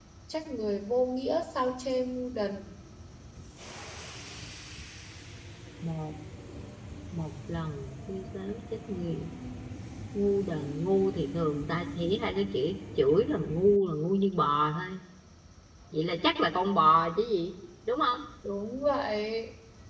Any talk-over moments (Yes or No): No